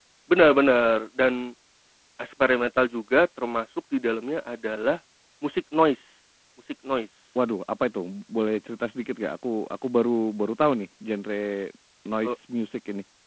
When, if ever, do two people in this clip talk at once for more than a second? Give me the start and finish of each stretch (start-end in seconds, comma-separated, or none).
none